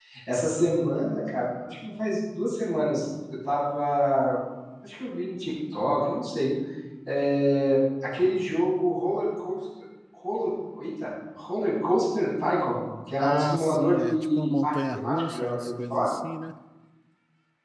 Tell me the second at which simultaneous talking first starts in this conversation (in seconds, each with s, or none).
13.2 s